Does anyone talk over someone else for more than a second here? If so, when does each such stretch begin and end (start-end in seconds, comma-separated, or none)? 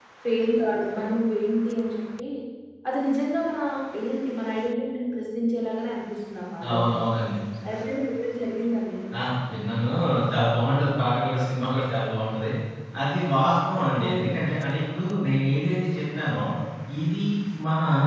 none